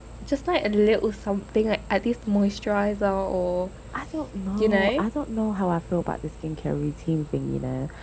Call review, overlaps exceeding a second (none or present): none